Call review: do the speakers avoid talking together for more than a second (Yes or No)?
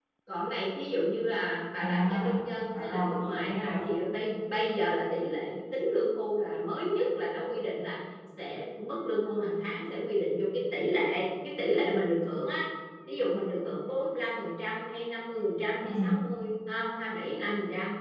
No